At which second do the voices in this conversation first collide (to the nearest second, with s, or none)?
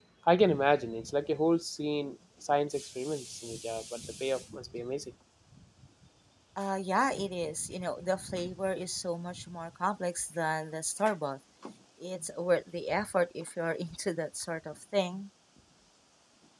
none